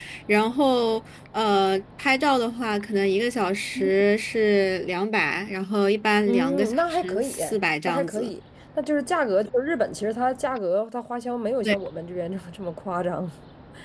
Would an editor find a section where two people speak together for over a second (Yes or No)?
Yes